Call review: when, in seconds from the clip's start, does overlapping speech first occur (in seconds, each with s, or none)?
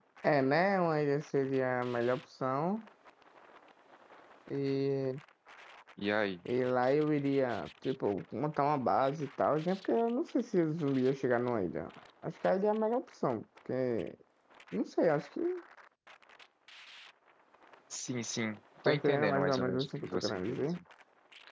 18.8 s